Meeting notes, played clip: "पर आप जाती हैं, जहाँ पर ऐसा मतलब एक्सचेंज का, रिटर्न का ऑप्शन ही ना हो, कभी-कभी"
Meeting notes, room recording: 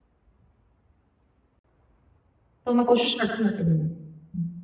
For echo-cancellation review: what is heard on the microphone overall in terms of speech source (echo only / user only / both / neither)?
user only